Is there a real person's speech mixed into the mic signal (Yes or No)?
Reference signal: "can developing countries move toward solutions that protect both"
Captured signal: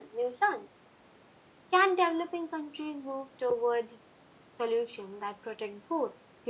No